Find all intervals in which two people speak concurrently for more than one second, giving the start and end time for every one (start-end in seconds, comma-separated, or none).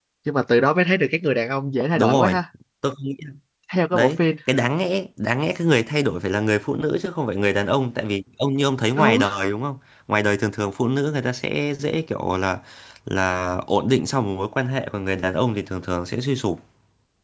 none